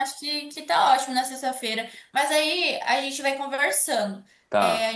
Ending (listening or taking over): listening